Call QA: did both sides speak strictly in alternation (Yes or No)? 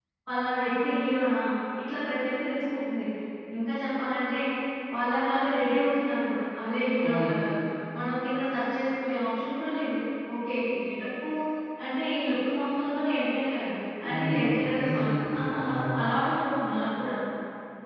No